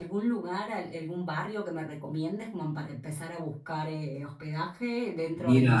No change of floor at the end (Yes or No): Yes